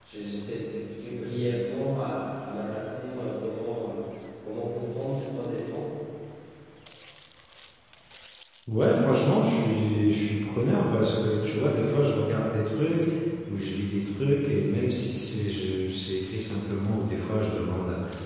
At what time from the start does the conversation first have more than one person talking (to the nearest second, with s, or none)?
none